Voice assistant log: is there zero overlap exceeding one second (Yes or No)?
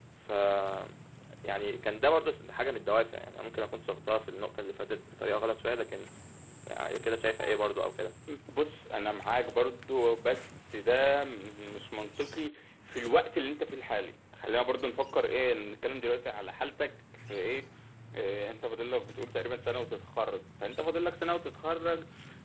Yes